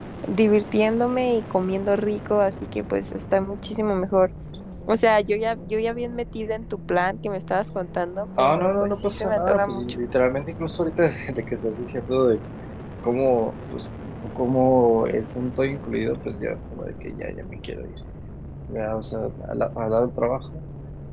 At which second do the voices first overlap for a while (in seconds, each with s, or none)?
8.4 s